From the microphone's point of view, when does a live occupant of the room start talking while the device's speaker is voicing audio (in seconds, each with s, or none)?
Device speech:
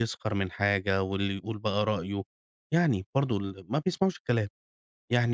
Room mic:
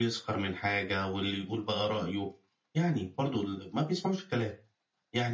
none